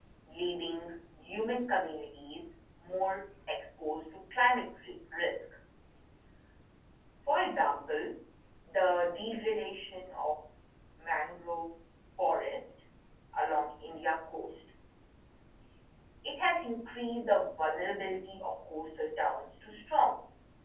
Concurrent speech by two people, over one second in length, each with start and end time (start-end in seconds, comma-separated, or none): none